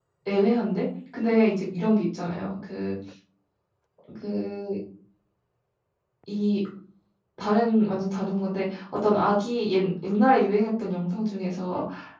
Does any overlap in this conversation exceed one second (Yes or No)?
No